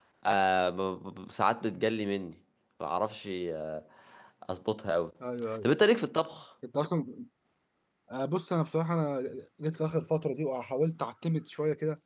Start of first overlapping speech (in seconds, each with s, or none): none